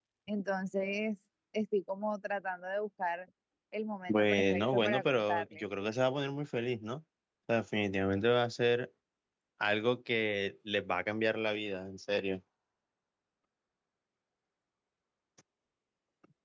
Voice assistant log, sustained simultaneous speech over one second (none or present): present